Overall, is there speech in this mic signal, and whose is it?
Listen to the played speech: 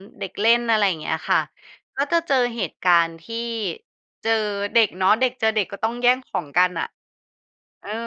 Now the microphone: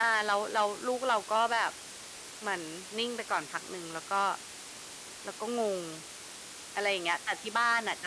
user only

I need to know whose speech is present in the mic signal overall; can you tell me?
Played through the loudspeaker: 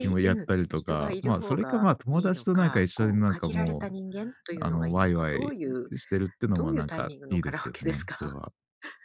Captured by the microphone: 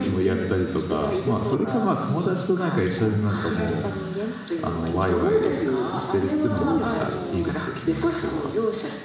both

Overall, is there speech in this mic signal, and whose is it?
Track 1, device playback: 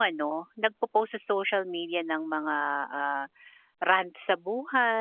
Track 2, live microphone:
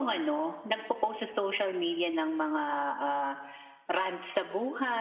echo only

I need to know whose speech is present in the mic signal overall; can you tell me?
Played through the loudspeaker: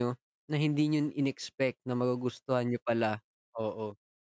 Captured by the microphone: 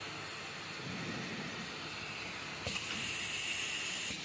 neither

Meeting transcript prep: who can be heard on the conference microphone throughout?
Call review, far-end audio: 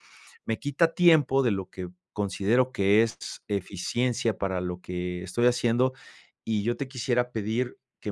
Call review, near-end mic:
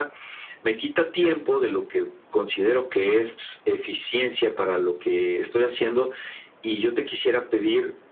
echo only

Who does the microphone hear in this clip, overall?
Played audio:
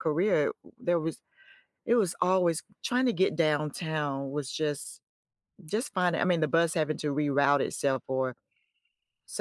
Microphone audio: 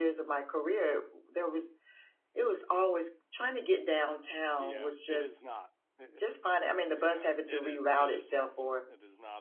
both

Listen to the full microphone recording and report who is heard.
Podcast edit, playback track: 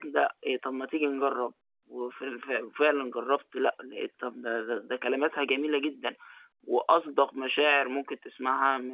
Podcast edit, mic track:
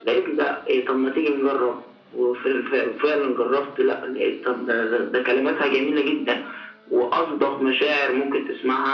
echo only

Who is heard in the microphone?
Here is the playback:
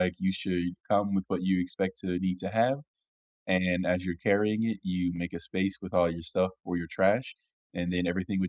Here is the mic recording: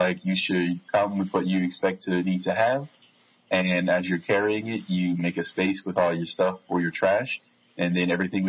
echo only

